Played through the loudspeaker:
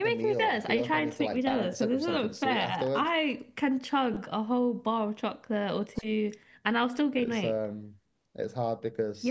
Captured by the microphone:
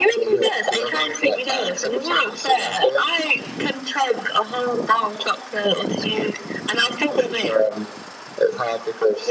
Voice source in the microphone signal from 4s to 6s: echo only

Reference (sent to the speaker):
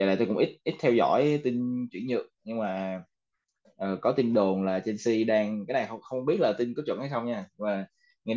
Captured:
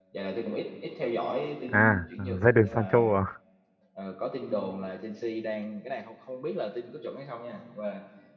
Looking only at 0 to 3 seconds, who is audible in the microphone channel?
both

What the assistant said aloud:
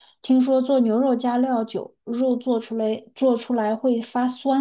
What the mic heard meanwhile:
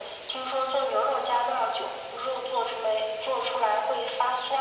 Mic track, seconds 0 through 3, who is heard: echo only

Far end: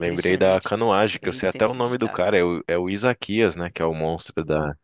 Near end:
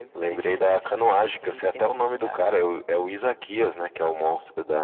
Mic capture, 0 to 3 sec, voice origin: echo only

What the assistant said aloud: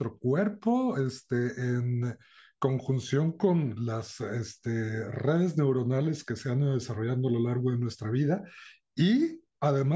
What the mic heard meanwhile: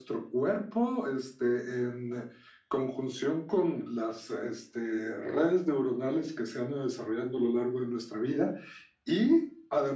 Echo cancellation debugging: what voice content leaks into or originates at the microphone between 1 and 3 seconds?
echo only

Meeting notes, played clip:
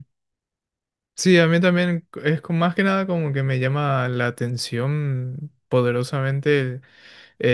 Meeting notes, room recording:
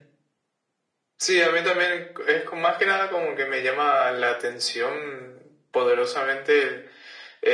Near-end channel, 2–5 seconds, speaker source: echo only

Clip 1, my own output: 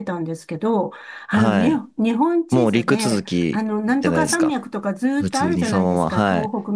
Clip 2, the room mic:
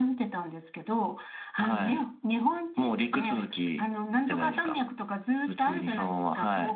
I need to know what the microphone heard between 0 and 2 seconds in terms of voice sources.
echo only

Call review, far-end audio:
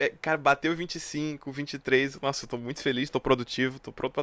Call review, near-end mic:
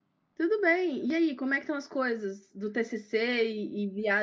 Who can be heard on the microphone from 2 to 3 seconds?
user only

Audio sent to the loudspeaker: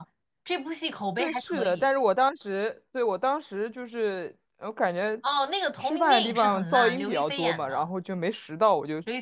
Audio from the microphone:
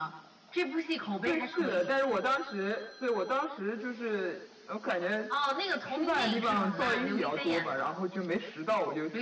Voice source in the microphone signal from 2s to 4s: echo only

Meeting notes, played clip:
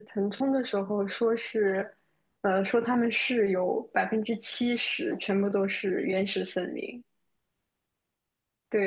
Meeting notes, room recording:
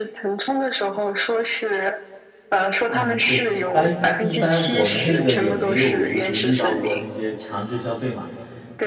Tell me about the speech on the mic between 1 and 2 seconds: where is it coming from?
echo only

